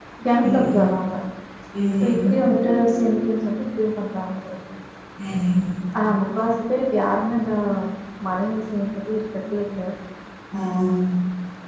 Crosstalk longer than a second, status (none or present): none